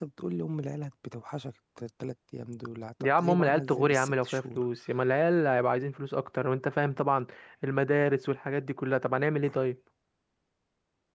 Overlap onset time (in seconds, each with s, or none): 3.0 s